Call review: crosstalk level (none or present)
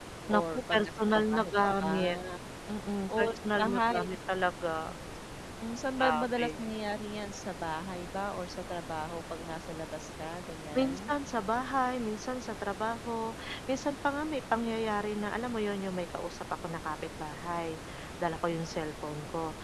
present